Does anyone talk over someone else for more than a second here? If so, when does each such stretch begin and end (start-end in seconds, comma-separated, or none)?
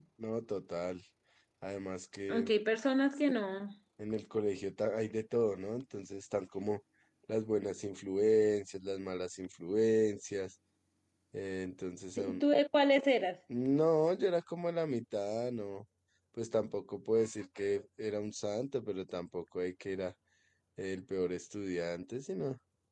none